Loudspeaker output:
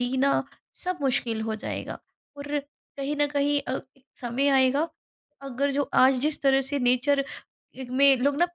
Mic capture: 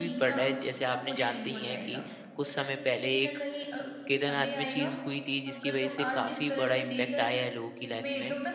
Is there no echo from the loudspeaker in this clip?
No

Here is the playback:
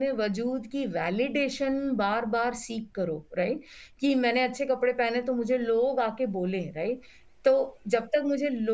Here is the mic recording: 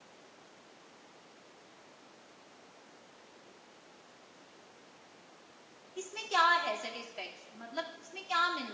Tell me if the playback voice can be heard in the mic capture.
No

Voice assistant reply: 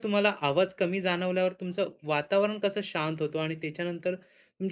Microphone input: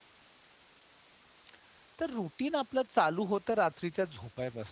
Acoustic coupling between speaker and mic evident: No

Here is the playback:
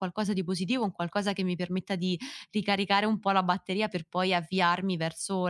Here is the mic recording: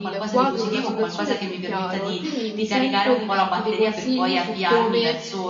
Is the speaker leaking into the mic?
Yes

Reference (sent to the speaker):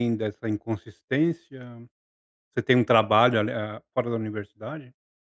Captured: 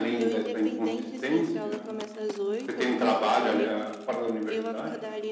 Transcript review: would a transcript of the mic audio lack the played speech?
No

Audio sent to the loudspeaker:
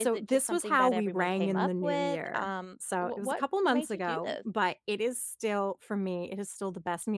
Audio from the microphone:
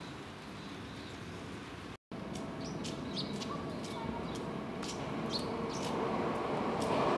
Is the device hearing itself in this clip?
No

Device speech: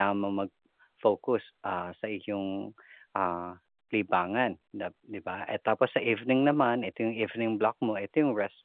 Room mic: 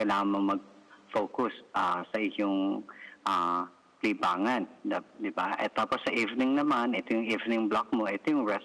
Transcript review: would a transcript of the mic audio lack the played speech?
No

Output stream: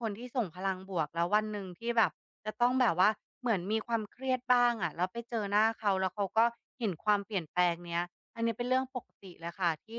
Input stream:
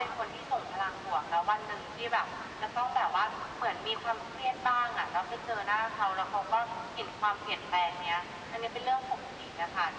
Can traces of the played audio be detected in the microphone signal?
Yes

